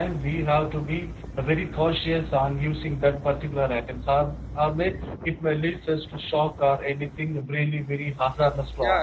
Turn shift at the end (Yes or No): Yes